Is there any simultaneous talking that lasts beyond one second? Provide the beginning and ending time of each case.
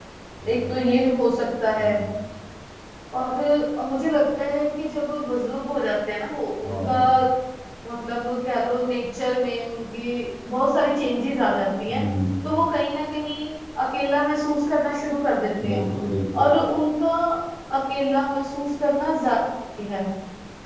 none

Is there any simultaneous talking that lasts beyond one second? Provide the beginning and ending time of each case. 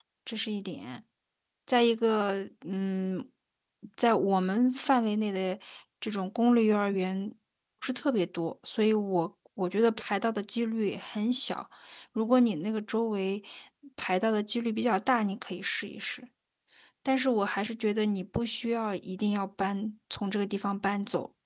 none

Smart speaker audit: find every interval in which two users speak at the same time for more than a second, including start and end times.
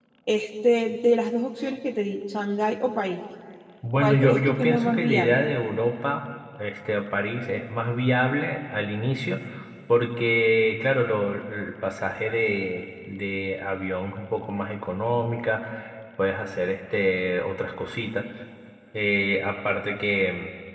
4.0-5.4

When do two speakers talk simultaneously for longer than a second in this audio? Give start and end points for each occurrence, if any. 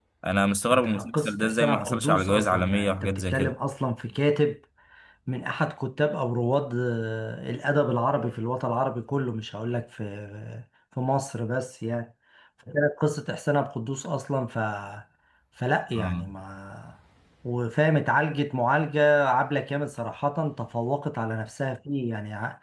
0.7-3.5

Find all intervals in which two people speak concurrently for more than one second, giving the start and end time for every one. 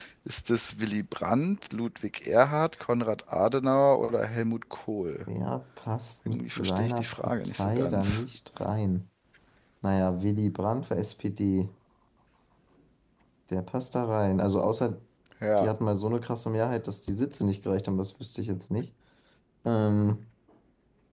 6.2-8.2

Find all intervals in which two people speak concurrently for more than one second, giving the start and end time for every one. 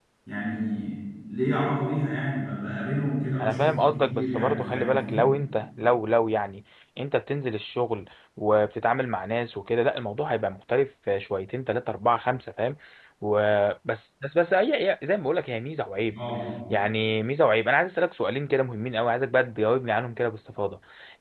3.4-5.2

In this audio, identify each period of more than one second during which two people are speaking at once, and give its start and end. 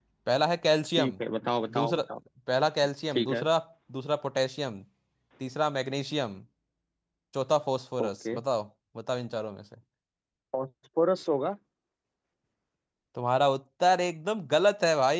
none

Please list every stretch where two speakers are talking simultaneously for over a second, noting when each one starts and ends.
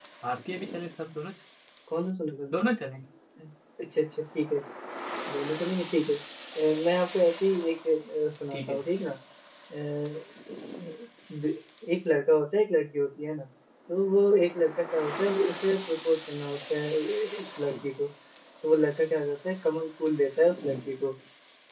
none

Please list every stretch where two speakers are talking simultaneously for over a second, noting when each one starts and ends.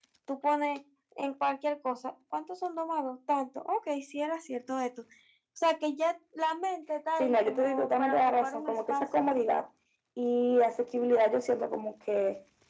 7.2-9.0

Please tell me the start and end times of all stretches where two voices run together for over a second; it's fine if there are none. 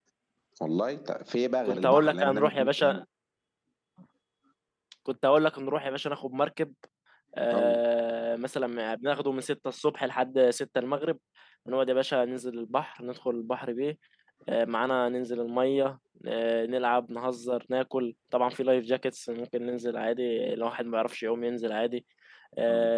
1.6-3.0

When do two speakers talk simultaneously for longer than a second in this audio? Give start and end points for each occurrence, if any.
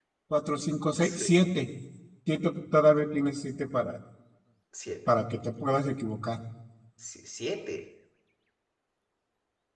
none

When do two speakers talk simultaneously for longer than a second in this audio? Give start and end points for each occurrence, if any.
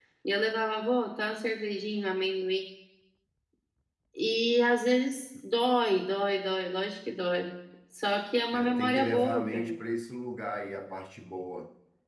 8.5-9.8

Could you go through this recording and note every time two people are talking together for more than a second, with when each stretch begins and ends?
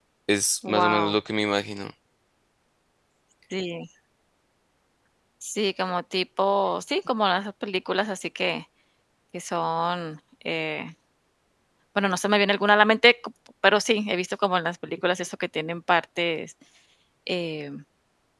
none

